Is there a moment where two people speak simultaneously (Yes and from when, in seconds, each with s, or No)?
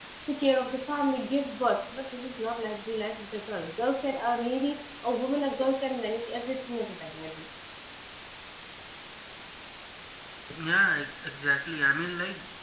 No